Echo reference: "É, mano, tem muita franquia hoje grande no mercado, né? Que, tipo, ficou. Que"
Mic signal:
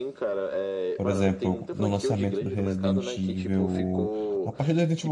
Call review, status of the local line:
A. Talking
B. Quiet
A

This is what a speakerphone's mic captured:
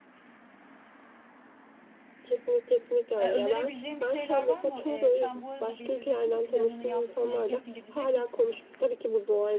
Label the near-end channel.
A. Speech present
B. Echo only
A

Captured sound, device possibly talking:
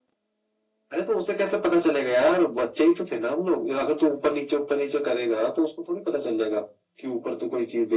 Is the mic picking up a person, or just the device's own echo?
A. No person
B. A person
A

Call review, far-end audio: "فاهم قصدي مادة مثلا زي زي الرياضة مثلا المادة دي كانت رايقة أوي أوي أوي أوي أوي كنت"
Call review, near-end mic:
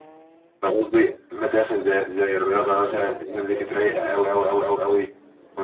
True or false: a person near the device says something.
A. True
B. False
A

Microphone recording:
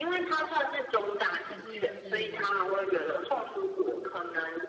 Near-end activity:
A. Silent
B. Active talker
B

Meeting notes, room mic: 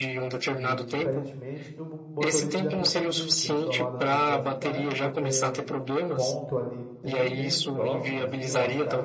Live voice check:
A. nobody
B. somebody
B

